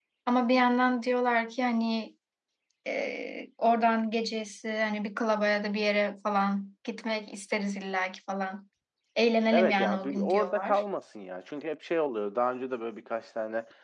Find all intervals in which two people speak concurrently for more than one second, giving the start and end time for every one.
9.5-10.8

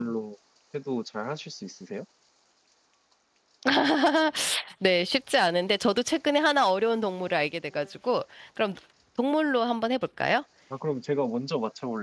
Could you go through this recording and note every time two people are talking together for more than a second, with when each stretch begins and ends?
none

